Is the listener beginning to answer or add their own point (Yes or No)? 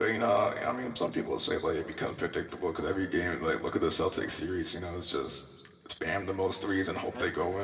Yes